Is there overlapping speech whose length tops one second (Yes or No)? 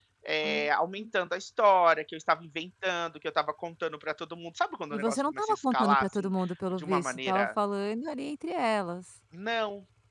Yes